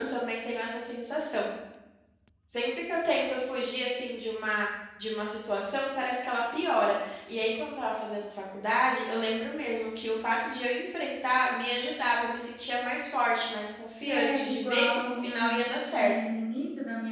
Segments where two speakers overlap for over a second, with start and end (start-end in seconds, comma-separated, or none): 14.1-16.3